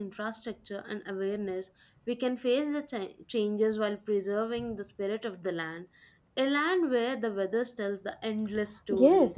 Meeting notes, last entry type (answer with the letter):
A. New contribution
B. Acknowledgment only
A